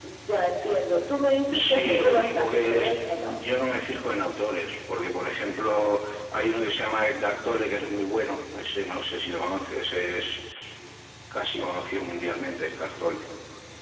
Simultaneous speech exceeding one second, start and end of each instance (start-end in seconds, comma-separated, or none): 1.5-3.4